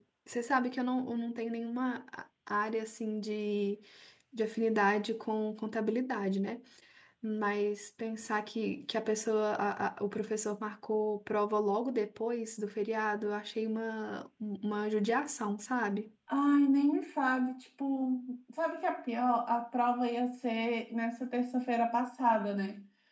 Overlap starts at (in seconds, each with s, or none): none